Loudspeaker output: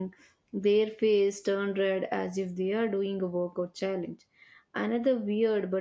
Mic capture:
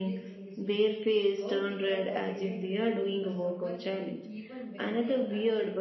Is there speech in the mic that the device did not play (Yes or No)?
Yes